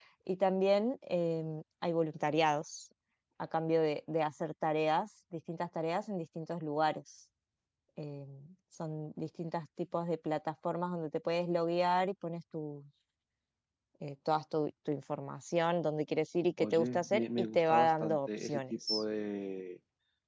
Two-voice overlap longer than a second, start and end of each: 16.6-19.0

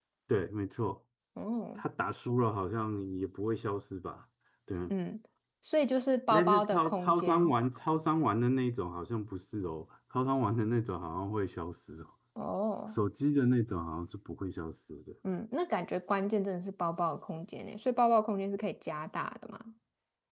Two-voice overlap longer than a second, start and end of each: 6.3-7.5

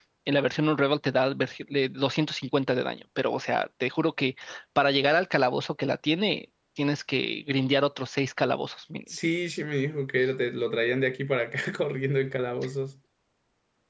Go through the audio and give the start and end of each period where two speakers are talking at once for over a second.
none

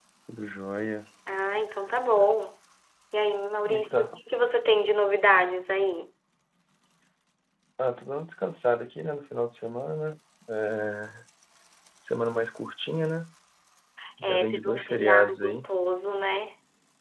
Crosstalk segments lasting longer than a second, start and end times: 14.2-15.7

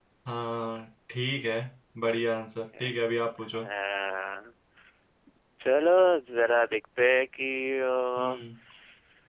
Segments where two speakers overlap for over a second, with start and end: none

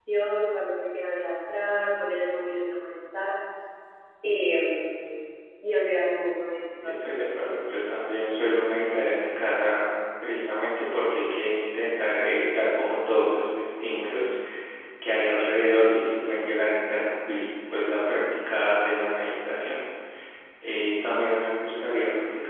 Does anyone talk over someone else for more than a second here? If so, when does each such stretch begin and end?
none

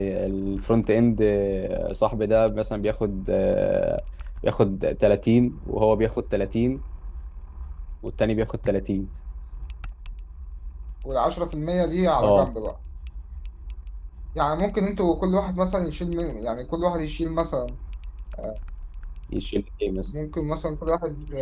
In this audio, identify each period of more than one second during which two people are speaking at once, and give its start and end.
none

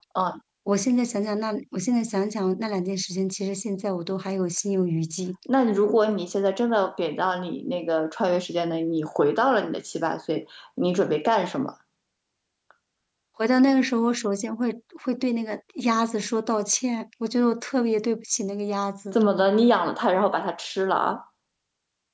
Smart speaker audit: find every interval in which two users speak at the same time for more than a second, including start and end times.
none

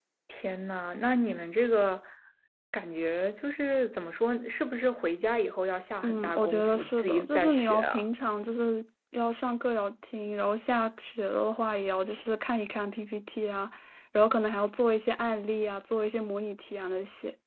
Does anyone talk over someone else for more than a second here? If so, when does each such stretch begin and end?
6.0-8.0

